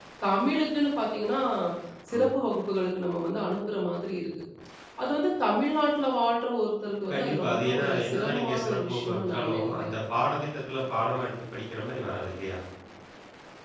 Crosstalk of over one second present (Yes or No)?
Yes